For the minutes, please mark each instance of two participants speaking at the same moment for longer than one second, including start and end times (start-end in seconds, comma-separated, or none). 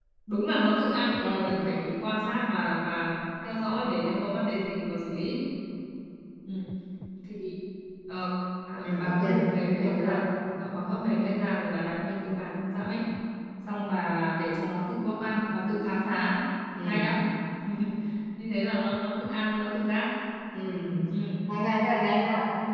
none